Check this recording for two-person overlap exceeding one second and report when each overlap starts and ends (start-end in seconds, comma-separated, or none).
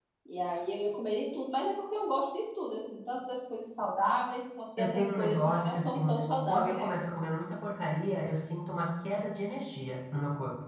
4.8-6.0